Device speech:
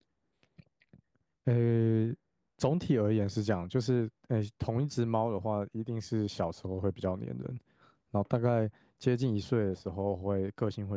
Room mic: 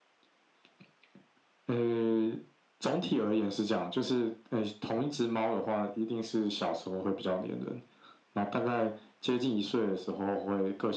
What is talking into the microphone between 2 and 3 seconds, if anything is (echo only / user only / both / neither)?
echo only